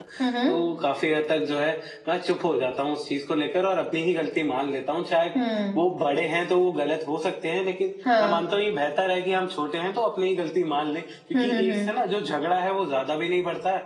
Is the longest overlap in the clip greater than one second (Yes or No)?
No